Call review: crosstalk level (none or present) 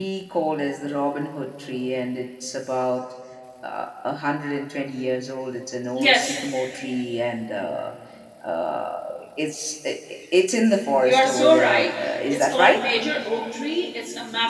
present